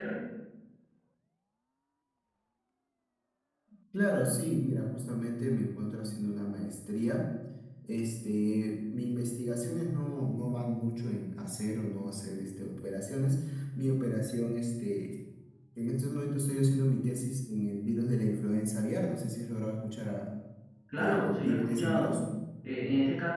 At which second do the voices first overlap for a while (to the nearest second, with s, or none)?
21 s